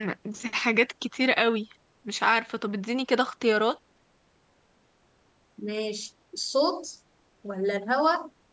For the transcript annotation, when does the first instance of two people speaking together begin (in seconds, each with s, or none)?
none